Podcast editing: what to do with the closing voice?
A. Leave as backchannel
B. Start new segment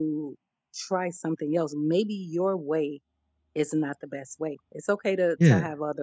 A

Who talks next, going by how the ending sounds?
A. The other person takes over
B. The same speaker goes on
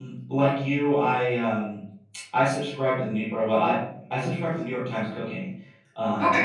B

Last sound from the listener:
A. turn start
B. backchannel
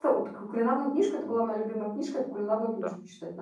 A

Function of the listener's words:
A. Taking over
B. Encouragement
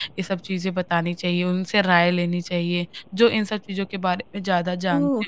A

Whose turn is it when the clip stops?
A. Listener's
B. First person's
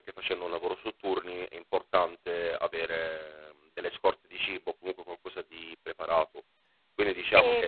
B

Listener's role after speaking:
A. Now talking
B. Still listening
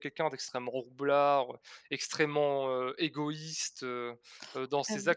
A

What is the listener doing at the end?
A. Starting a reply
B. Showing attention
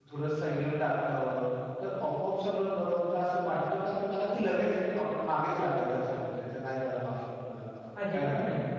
A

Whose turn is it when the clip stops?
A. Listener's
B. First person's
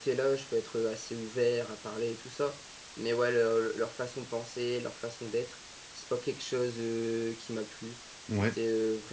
B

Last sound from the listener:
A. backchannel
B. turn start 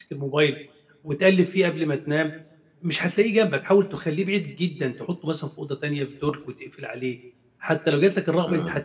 A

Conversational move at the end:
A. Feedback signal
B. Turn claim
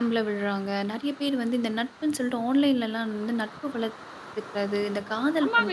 B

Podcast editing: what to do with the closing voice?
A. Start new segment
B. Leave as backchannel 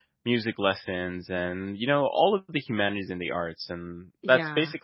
B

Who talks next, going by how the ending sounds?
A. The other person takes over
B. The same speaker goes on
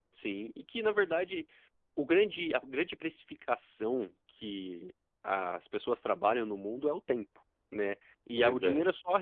B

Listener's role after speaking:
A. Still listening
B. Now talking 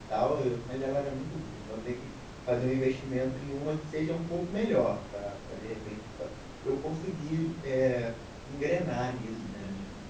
B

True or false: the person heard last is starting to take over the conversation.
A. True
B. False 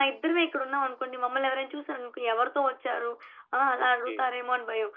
B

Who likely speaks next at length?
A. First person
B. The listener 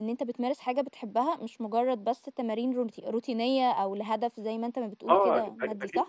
B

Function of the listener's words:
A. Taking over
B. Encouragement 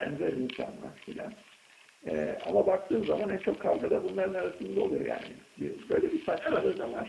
A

